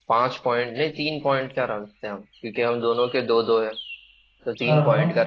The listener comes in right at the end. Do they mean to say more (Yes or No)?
No